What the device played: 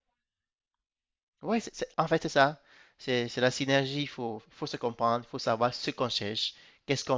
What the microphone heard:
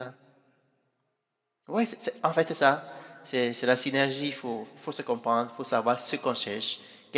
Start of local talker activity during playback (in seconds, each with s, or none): none